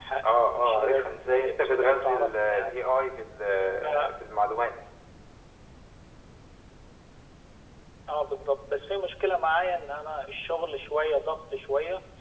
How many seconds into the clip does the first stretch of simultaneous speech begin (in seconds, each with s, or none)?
0.6 s